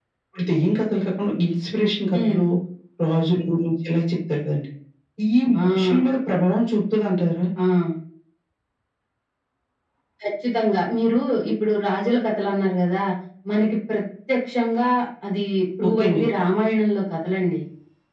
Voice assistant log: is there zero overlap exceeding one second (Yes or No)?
Yes